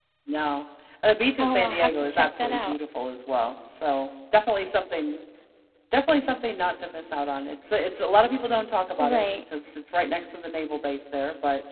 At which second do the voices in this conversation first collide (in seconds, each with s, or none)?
1.4 s